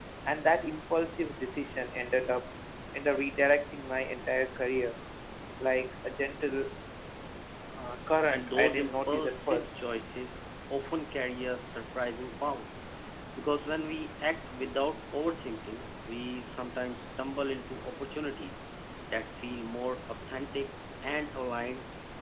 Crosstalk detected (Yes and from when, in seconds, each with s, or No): Yes, from 8.3 s